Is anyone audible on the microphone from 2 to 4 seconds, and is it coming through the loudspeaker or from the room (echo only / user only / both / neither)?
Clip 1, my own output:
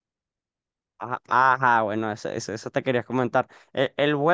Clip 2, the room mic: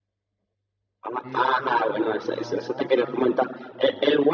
both